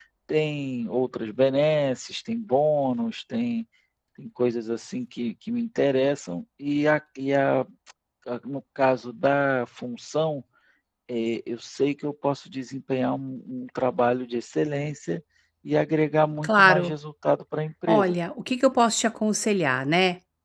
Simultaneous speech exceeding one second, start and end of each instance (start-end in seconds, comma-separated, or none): none